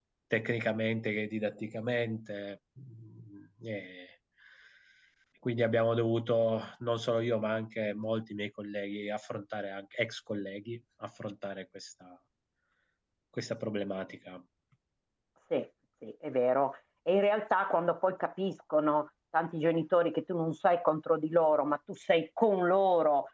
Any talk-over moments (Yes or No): No